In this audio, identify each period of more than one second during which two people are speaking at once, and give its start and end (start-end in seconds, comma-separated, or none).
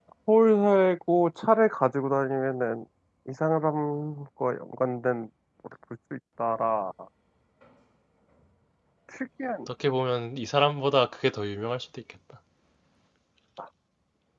none